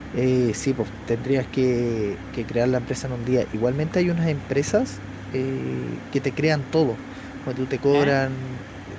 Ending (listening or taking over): listening